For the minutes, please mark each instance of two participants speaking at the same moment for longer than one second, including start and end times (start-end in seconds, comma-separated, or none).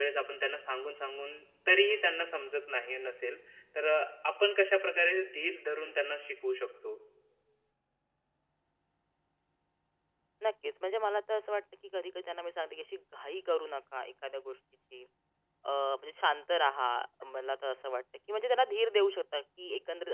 none